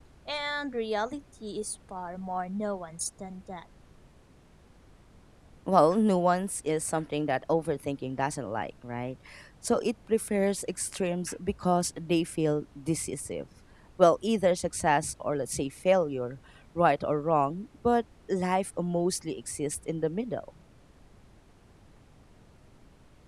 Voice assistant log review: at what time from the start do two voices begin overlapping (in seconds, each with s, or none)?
none